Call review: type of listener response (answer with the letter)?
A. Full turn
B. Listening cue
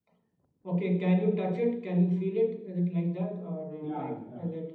A